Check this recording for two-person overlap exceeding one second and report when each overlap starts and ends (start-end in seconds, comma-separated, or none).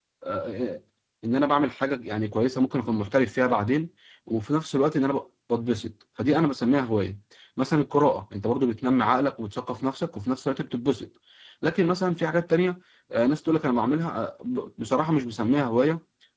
none